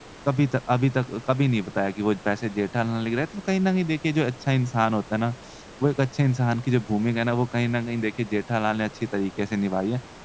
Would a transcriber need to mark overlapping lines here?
No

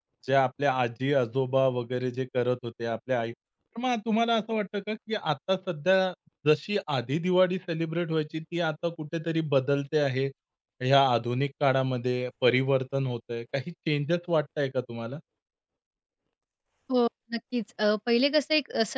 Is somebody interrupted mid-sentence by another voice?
No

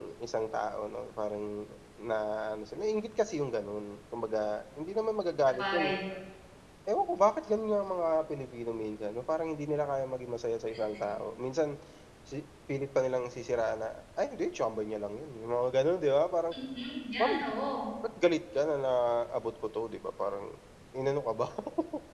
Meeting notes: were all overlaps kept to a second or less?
Yes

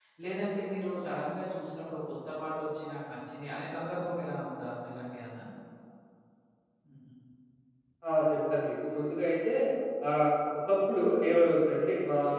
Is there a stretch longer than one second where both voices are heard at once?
No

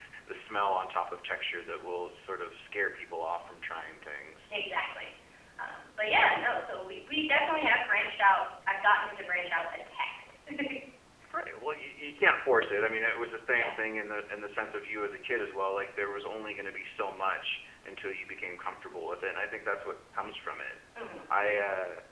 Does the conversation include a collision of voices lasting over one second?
No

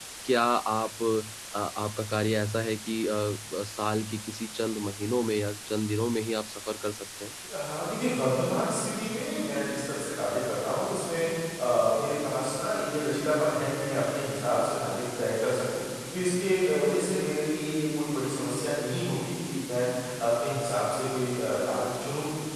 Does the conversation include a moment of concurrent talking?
No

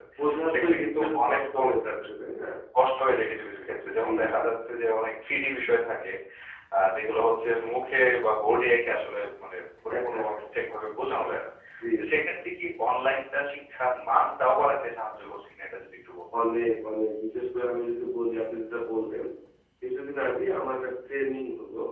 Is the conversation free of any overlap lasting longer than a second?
No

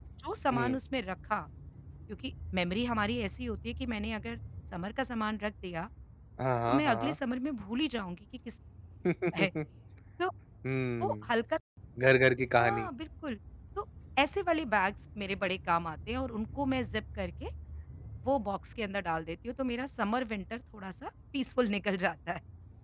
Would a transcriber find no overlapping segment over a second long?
Yes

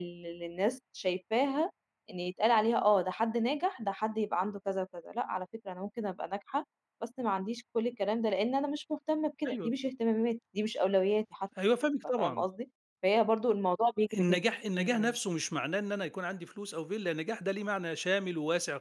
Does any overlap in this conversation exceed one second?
No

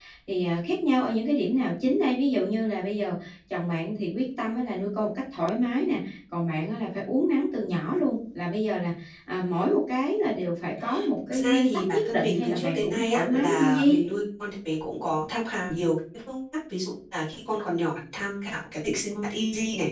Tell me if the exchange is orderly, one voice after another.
No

